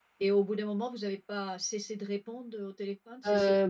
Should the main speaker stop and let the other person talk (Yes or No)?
Yes